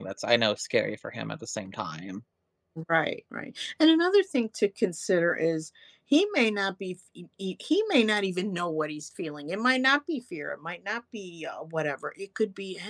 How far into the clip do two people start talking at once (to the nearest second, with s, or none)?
none